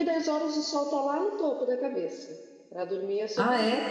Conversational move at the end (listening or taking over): listening